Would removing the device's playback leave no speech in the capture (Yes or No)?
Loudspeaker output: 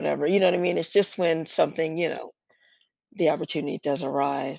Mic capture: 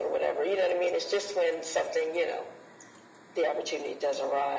Yes